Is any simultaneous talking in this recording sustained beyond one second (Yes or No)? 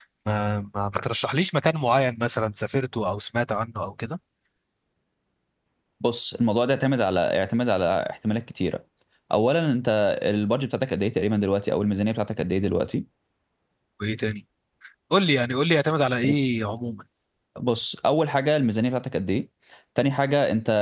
No